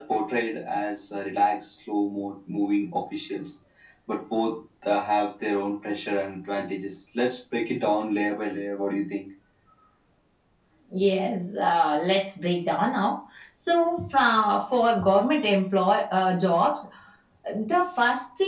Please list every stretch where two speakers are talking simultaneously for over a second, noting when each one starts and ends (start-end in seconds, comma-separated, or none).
none